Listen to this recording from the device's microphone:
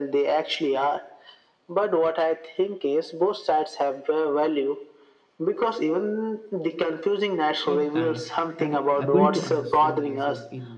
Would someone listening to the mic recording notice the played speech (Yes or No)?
Yes